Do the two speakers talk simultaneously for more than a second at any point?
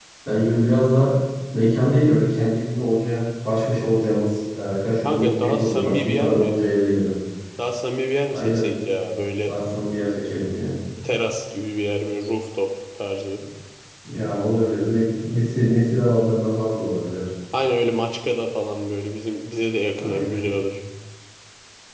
Yes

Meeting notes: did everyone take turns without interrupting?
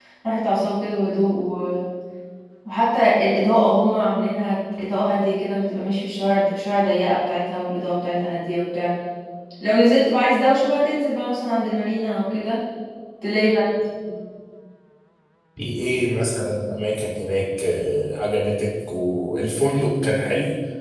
Yes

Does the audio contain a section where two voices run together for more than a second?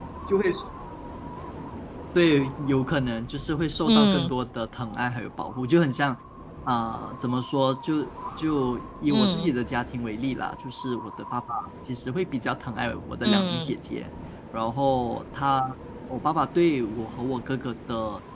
No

